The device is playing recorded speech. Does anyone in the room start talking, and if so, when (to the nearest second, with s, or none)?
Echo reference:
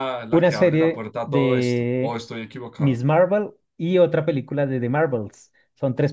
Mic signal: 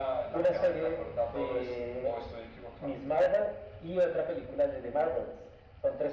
none